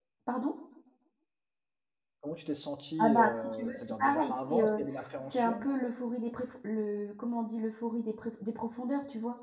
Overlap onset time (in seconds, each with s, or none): 3.0 s